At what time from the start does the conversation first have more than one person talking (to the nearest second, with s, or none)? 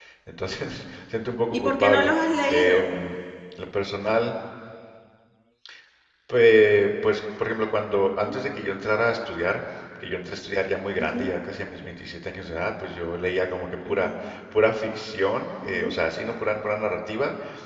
2 s